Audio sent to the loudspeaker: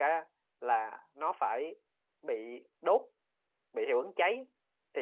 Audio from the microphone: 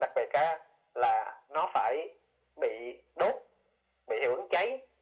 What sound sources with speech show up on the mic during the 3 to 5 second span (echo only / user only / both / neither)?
echo only